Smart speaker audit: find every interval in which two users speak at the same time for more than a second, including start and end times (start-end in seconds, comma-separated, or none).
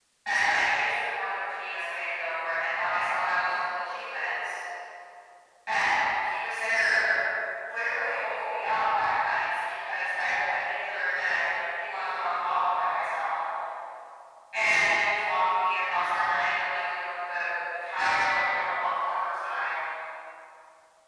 11.8-13.2